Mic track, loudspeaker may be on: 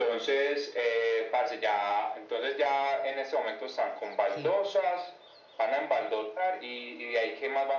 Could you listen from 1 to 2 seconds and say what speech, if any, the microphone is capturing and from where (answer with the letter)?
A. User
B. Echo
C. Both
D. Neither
B